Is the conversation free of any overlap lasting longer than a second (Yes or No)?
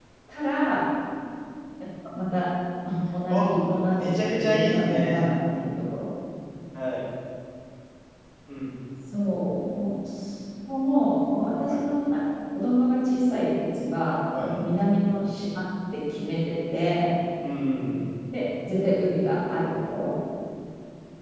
No